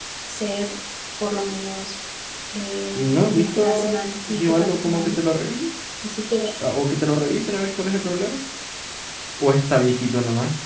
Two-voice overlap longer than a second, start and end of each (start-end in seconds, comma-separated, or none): 3.0-5.2